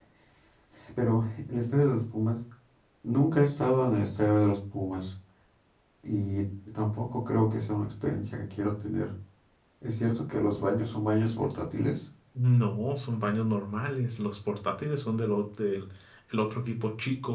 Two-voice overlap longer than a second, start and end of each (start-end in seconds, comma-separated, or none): none